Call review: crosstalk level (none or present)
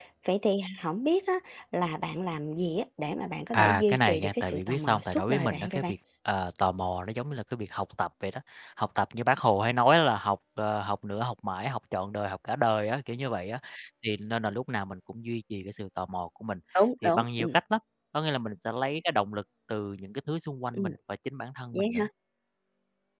present